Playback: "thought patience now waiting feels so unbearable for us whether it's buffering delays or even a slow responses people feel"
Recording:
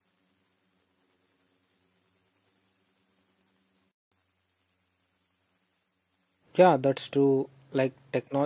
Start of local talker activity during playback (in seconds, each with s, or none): 6.6 s